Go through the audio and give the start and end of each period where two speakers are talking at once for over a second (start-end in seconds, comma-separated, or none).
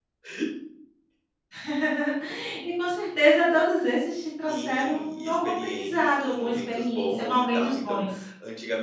4.5-8.0